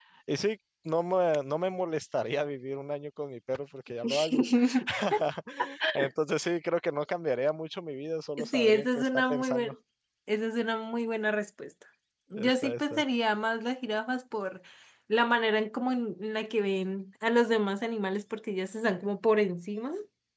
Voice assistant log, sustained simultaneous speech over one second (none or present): present